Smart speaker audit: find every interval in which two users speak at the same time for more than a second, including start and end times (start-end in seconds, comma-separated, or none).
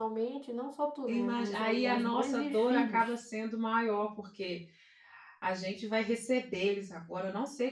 1.1-3.1